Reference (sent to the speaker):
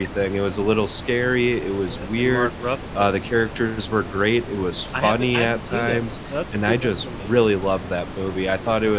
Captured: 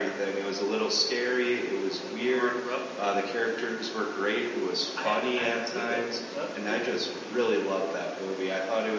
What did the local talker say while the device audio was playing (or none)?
none